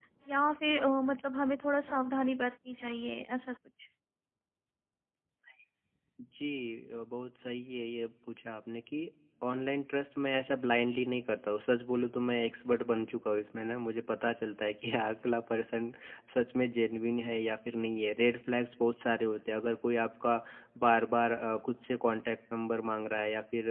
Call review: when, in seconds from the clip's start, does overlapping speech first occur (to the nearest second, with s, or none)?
none